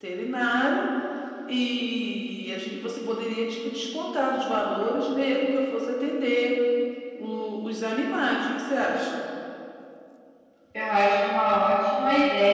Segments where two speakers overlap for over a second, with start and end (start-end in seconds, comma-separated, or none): none